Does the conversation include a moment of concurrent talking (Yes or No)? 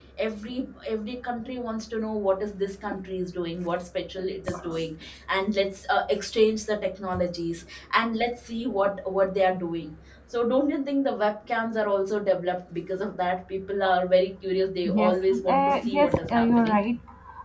Yes